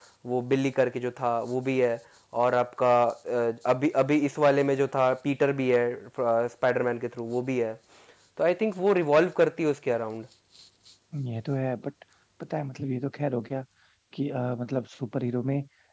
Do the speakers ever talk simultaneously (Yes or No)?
No